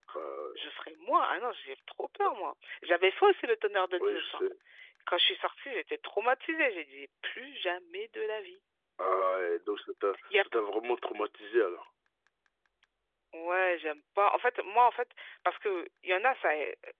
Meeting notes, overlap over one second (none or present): none